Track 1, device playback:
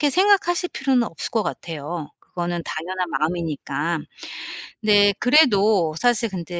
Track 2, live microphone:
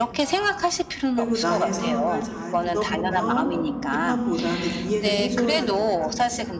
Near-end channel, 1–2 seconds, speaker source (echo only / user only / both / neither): both